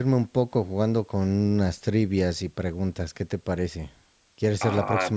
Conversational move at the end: taking over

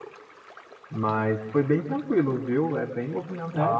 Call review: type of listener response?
listening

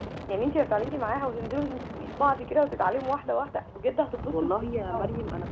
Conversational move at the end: taking over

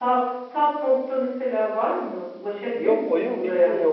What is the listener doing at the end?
taking over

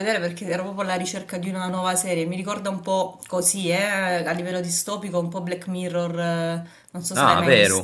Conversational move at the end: taking over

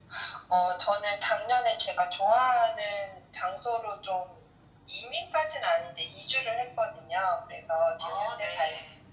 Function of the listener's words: listening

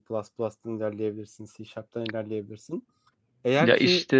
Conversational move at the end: taking over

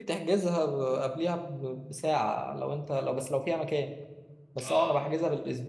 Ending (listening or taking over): listening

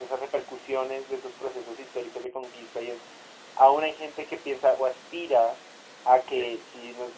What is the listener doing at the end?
listening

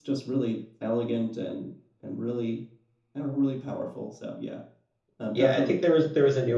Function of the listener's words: taking over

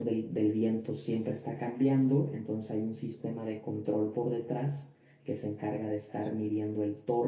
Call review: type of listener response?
listening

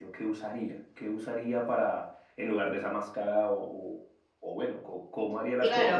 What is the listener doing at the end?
taking over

